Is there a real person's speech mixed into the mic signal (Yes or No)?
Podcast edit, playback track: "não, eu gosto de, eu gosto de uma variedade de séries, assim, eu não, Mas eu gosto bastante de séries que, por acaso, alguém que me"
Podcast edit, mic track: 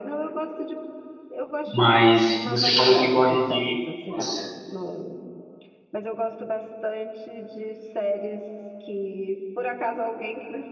Yes